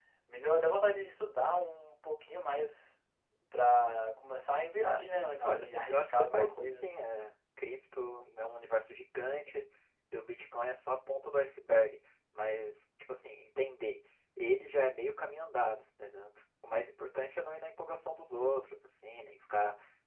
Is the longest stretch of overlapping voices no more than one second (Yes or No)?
No